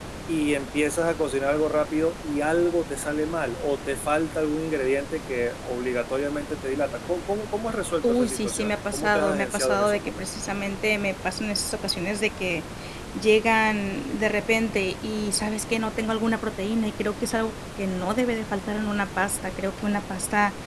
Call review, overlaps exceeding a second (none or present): present